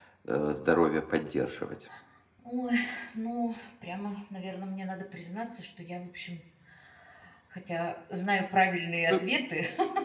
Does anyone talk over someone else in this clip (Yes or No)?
No